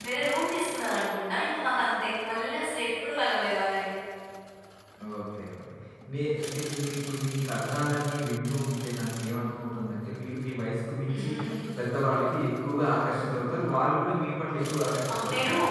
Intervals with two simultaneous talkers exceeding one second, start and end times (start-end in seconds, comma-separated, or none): none